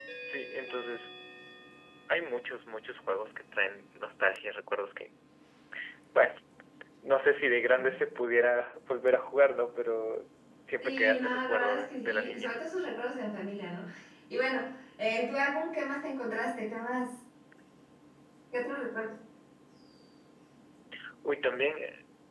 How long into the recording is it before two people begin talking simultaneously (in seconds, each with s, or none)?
10.8 s